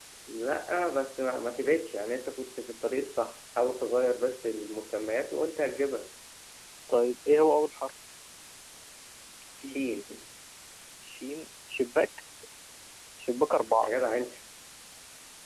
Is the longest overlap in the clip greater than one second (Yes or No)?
No